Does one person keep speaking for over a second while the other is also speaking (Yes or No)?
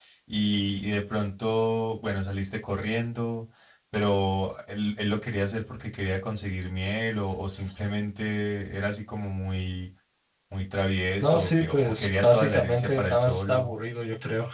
Yes